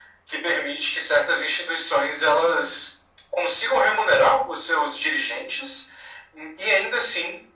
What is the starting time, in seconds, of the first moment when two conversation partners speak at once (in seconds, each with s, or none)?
none